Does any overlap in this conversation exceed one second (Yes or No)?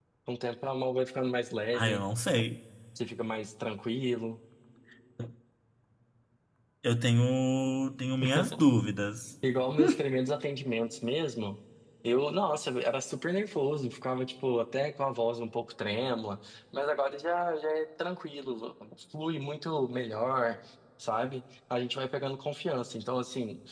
No